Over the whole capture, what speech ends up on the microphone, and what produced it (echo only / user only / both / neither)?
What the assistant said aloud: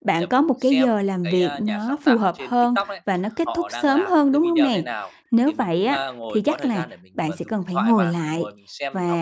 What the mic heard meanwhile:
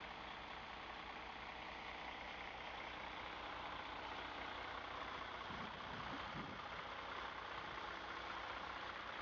neither